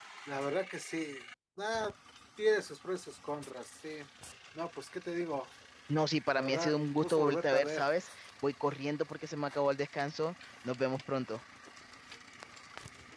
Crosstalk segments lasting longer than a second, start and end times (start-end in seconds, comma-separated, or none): 6.3-7.8